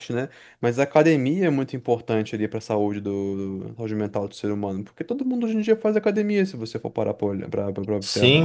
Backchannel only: No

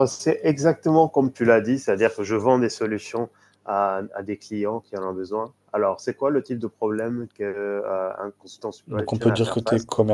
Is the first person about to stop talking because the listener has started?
Yes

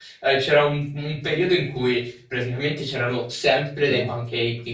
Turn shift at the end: No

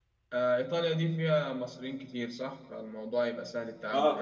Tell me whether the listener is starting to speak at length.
Yes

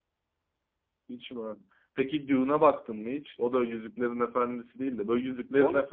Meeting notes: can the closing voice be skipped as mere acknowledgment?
Yes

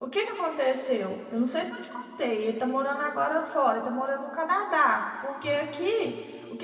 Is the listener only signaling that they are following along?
Yes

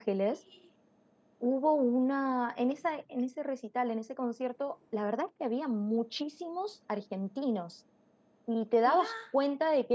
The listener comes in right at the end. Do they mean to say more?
No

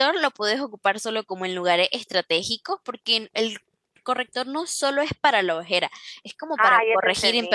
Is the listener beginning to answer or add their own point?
Yes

